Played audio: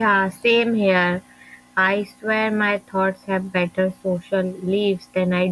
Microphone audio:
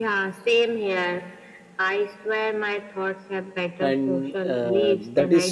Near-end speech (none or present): present